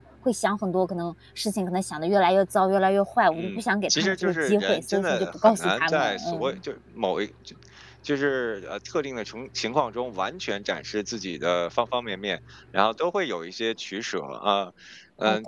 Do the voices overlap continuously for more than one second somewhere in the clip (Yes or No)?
Yes